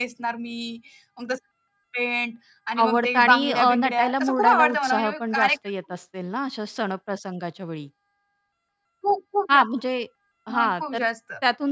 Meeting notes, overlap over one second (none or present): present